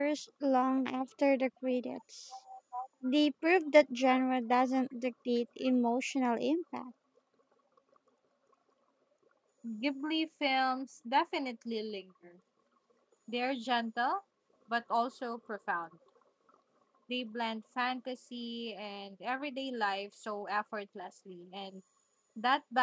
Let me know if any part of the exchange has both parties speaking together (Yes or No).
No